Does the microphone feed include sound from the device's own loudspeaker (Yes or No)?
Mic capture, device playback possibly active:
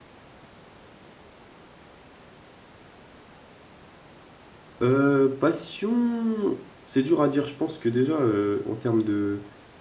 No